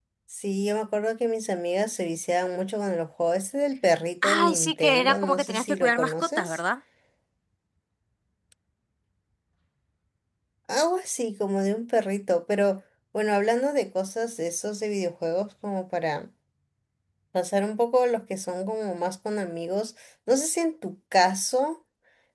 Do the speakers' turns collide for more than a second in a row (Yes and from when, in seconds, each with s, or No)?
Yes, from 4.2 s